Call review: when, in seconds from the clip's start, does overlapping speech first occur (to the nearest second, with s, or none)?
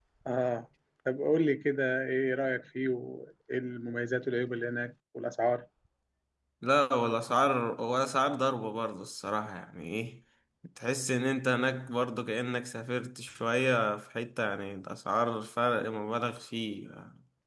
none